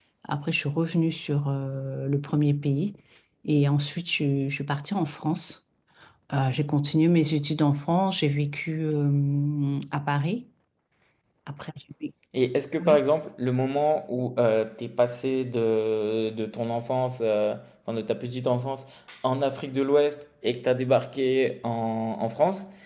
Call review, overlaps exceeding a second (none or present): none